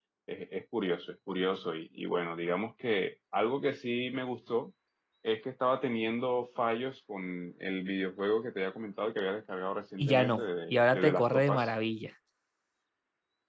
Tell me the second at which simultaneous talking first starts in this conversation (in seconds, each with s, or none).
10.0 s